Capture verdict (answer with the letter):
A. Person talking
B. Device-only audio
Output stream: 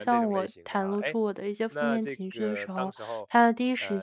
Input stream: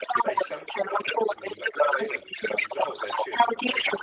A